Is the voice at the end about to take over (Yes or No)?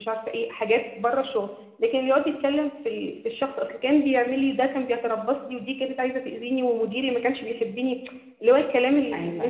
Yes